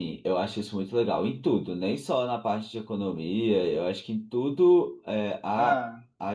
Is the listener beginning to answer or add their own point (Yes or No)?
No